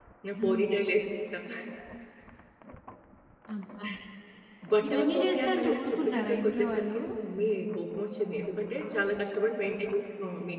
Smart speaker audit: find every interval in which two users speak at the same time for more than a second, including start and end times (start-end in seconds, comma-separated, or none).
4.9-7.0